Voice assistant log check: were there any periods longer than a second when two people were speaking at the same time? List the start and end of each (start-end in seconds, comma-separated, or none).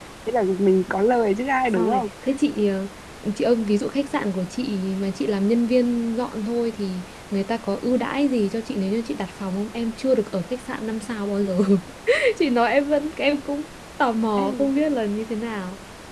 none